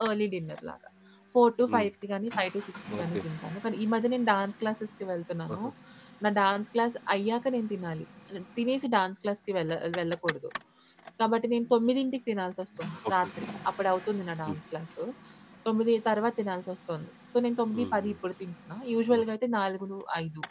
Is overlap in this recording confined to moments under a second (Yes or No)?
Yes